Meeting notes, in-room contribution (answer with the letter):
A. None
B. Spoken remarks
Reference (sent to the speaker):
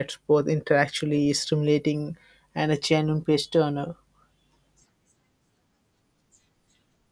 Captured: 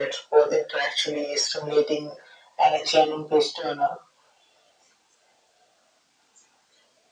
A